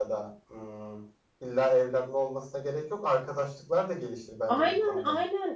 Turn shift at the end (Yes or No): Yes